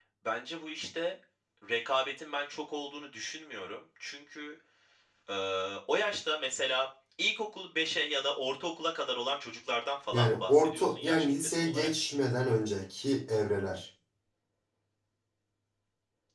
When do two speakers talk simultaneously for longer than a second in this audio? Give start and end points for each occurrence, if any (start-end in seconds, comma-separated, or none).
10.1-11.9